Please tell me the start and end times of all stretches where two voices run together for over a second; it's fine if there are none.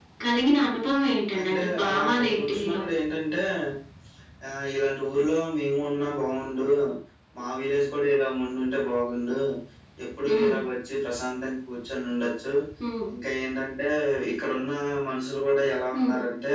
1.4-2.8

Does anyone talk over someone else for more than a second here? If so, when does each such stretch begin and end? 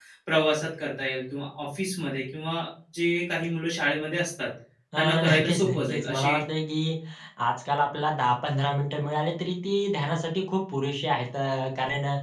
5.0-6.4

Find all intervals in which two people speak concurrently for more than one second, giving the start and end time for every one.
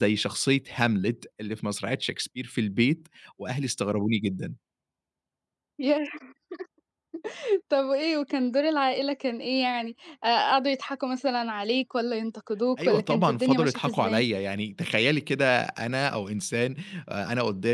12.8-14.2

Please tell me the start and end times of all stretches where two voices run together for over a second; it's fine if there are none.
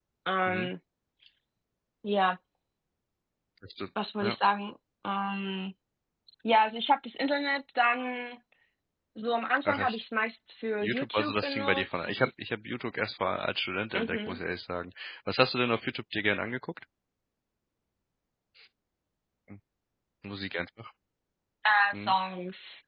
10.8-12.3

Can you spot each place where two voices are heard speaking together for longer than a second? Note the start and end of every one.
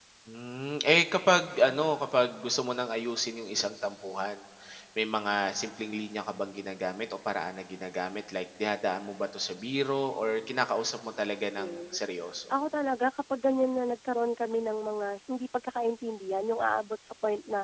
none

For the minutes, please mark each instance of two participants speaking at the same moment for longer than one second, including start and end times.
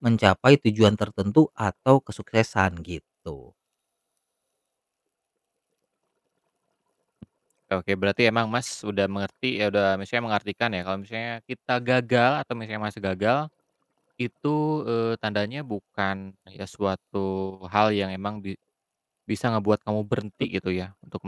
none

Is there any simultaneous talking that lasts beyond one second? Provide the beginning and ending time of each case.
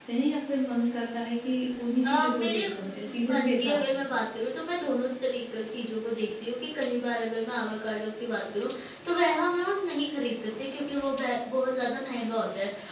2.0-4.0

